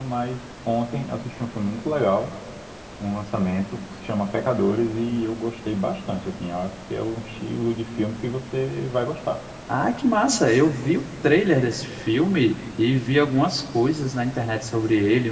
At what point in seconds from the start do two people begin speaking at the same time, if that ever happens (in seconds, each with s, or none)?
none